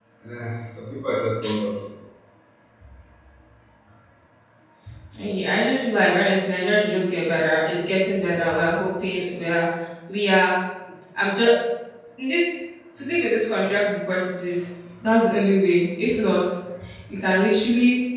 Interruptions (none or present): none